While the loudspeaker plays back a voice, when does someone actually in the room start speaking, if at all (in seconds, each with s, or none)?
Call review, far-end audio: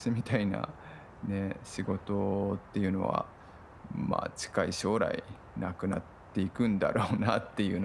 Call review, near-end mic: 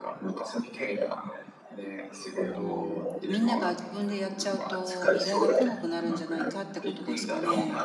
2.5 s